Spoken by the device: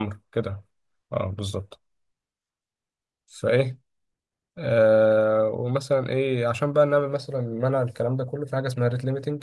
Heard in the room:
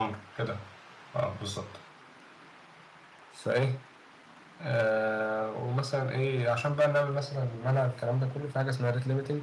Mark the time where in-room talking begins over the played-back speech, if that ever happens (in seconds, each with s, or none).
none